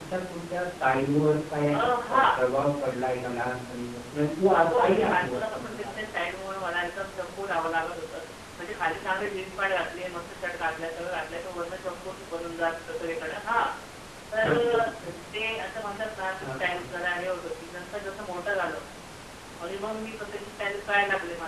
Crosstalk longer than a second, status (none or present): present